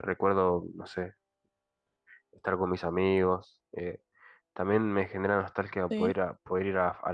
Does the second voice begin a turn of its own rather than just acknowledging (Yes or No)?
No